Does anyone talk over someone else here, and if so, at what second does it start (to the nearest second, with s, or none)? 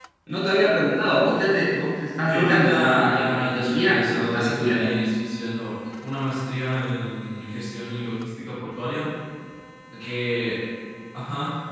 2 s